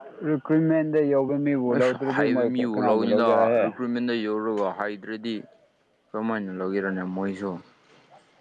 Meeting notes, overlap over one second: present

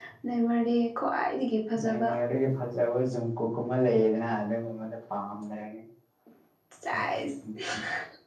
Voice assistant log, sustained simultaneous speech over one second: none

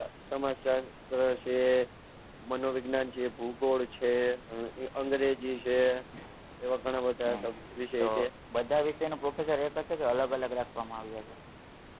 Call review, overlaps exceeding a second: none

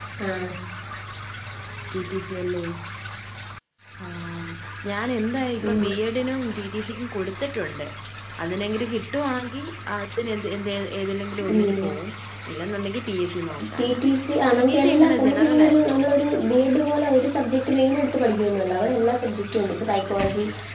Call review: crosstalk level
present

